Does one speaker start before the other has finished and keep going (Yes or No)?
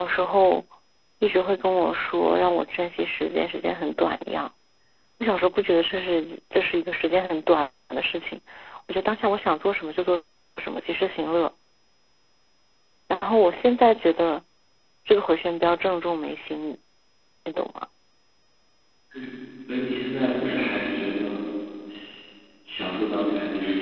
No